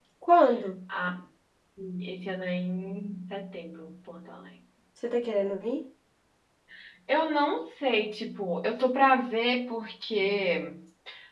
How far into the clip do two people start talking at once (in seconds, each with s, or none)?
none